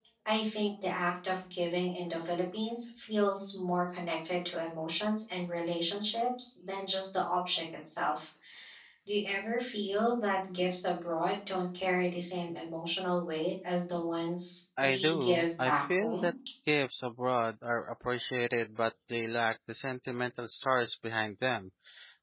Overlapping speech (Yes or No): Yes